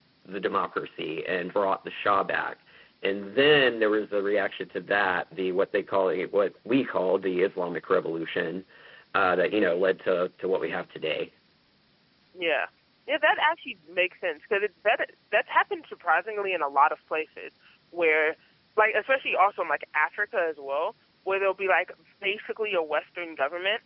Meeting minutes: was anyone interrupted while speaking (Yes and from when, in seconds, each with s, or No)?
No